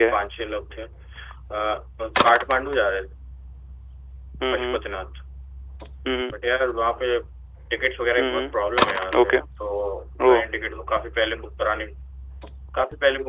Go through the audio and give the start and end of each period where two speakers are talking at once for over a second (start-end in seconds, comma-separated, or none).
none